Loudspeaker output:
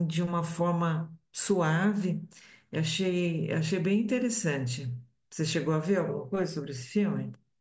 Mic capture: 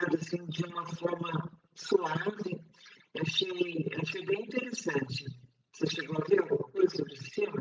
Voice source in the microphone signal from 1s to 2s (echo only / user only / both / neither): echo only